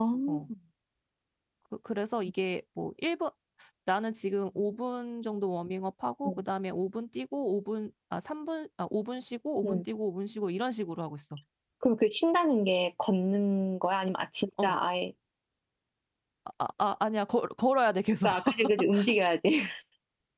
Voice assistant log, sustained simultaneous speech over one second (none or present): none